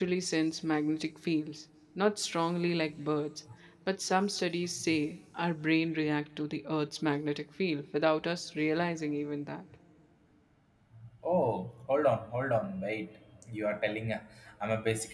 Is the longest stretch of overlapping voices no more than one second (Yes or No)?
Yes